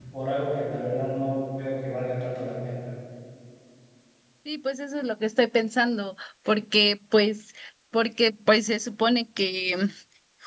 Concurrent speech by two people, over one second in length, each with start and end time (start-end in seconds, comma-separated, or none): none